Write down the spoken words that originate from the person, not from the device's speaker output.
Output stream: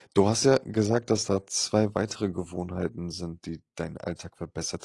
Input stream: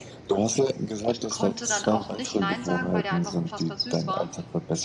ich konnte dann auch nicht nein sagen, weil der einfach unfassbar süß war.

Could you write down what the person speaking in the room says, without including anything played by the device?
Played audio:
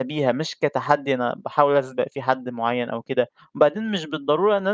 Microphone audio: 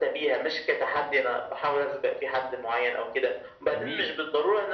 جميل.

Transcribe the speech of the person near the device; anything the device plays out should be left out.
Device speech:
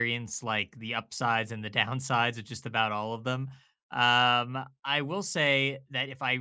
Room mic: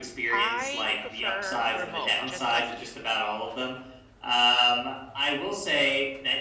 I prefer remote, just like you.

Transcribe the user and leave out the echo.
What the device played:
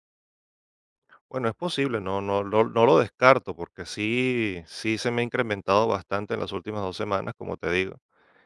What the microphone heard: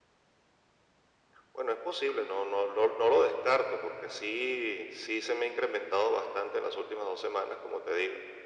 none

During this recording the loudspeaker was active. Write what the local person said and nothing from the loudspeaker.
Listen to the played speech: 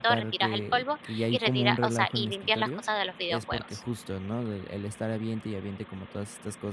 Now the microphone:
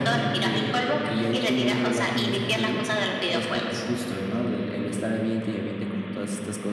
none

